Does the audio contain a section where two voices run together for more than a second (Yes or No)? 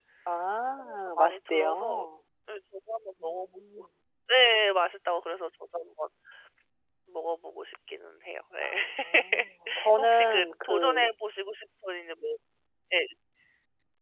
Yes